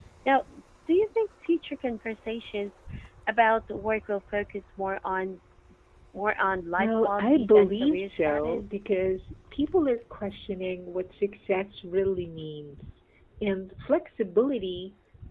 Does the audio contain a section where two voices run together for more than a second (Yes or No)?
Yes